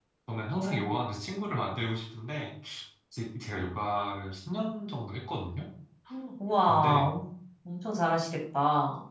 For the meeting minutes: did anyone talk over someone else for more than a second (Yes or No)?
No